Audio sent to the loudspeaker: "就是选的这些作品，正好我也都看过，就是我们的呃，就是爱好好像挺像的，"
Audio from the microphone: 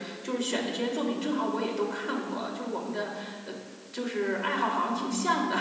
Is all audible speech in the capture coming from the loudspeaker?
Yes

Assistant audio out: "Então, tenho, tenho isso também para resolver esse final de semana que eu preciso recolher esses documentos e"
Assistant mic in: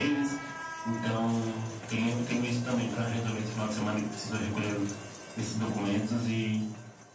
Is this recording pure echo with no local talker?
Yes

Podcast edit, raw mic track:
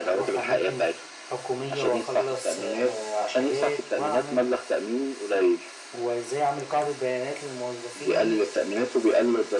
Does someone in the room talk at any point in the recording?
No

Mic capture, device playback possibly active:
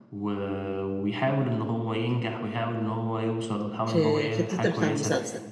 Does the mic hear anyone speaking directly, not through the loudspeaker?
Yes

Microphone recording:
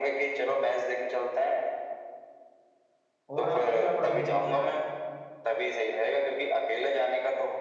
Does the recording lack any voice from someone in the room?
No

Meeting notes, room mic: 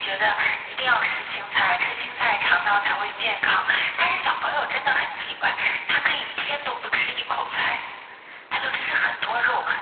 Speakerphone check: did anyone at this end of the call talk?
No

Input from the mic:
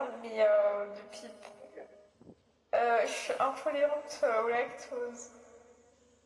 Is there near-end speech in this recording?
No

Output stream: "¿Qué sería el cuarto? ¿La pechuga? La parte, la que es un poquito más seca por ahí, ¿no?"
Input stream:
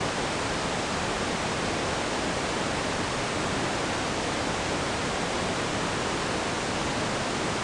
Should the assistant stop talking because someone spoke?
No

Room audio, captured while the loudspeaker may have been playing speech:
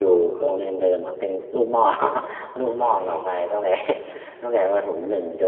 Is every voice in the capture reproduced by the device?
No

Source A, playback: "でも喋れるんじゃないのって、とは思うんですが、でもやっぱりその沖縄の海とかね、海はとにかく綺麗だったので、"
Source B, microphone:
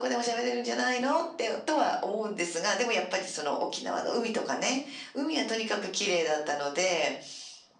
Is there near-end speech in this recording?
No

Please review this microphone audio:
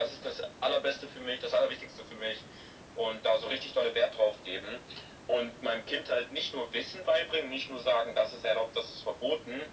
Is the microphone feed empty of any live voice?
Yes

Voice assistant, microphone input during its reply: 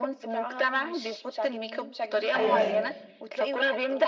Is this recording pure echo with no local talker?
No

